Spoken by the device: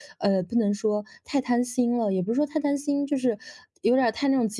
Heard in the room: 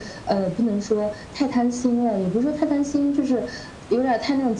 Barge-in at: none

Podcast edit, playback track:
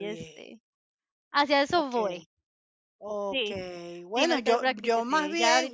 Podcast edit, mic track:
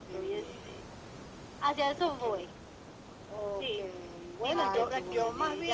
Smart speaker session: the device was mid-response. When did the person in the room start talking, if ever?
5 s

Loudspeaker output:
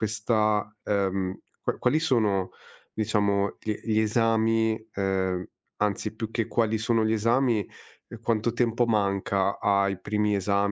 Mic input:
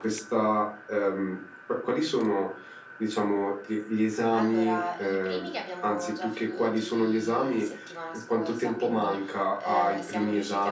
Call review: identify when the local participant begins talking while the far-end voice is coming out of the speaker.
4 s

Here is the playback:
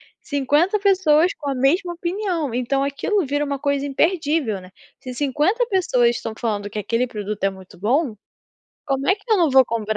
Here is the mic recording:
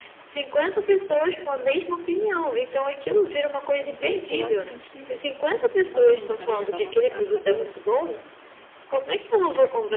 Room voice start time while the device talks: 4 s

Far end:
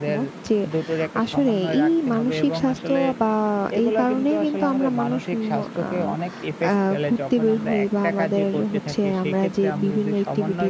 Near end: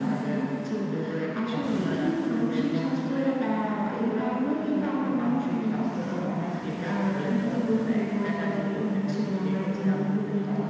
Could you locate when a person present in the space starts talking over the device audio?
none

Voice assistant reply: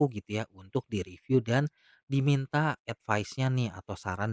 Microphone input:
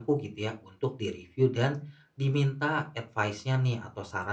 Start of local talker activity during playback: none

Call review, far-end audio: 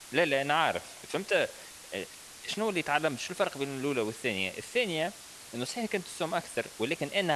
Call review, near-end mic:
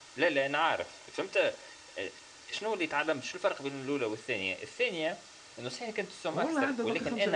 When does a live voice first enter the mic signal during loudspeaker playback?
6 s

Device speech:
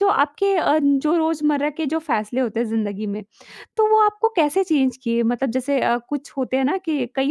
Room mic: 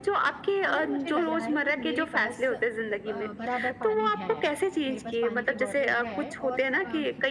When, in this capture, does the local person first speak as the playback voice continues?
1 s

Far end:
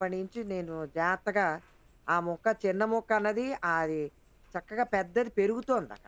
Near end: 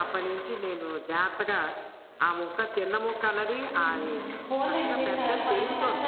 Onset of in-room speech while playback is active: 4 s

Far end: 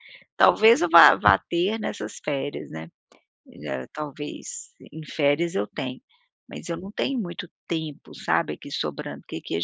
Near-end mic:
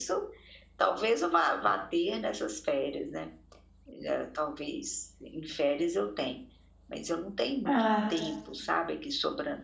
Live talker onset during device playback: 8 s

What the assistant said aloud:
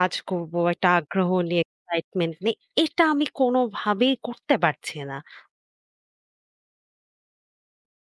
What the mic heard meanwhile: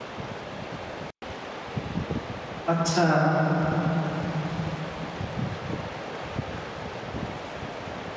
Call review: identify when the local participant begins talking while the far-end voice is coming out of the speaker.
3 s

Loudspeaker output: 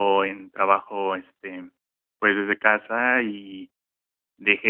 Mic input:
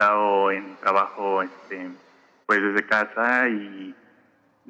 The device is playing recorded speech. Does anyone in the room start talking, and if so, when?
none

